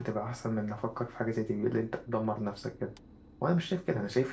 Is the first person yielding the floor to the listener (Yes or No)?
No